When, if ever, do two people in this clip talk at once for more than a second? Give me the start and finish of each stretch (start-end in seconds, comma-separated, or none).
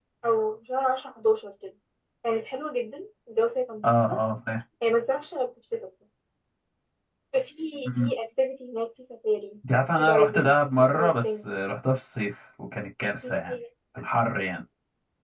10.0-11.3